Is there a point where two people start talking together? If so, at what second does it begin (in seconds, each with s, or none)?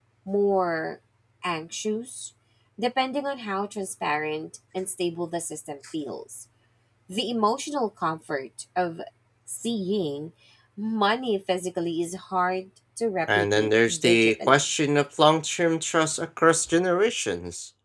13.3 s